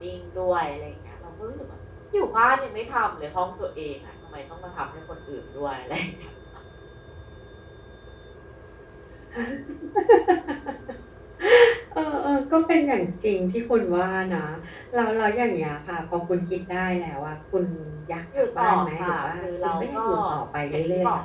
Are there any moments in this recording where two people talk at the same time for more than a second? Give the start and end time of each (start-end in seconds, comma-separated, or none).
18.6-20.1